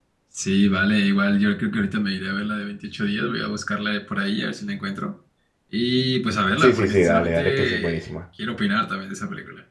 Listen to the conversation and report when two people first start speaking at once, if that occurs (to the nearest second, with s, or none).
7 s